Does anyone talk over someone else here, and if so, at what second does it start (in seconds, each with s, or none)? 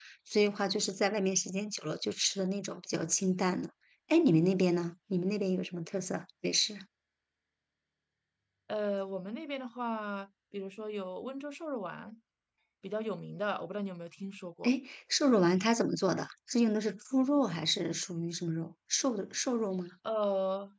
none